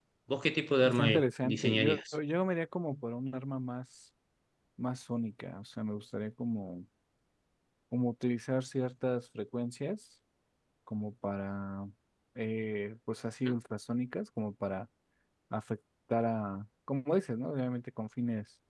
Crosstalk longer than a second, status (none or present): present